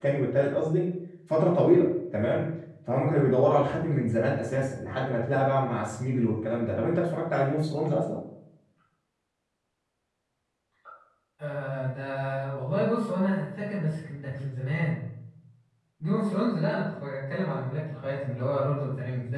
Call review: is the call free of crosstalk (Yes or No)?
Yes